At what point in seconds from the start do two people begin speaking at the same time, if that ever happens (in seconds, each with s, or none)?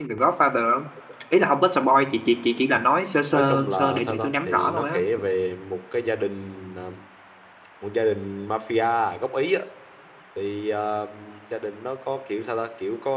3.3 s